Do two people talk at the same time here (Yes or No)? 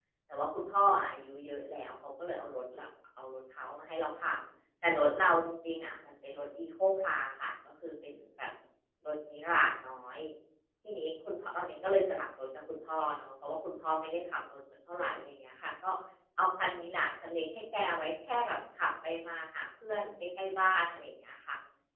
No